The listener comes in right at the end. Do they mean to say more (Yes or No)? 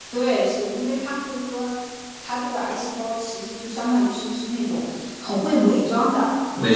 No